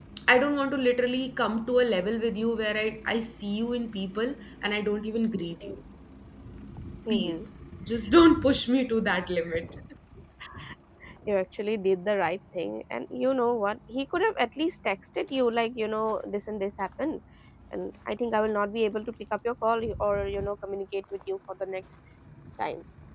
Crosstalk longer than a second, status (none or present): none